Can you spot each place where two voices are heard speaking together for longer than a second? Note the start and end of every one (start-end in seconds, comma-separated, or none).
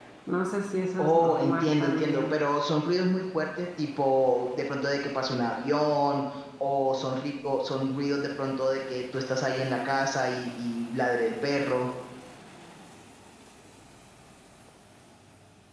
1.0-2.4